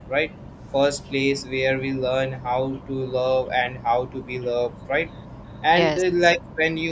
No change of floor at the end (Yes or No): Yes